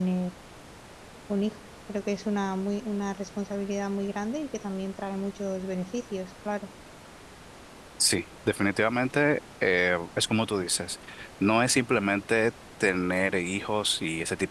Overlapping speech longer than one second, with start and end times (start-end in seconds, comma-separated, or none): none